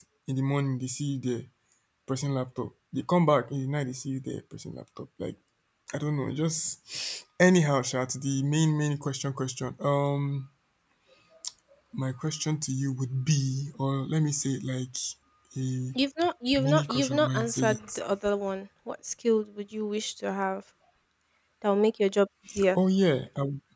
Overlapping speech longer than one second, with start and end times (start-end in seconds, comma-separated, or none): 16.6-18.0